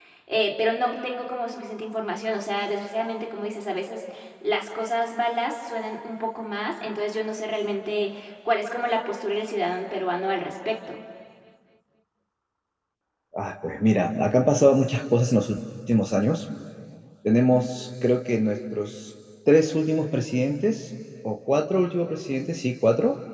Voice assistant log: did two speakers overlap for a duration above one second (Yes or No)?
No